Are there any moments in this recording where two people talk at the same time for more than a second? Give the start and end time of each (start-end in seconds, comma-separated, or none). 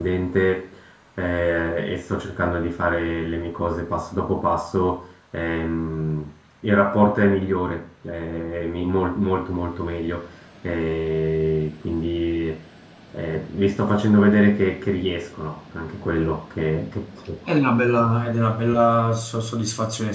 none